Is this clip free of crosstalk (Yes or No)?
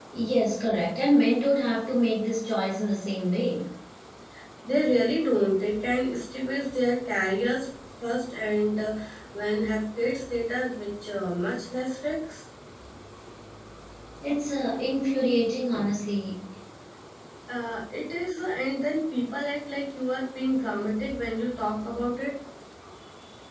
Yes